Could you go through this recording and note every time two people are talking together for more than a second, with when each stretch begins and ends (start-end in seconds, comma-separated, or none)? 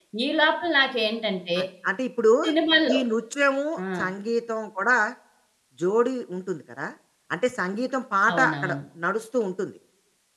none